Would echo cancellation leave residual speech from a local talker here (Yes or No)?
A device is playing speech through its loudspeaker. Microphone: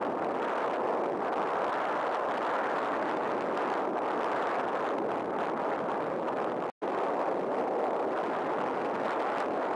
No